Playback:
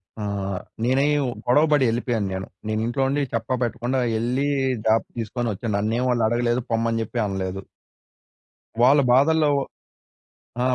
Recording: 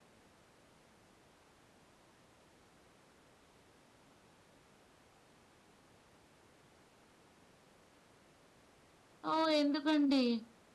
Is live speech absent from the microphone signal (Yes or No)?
No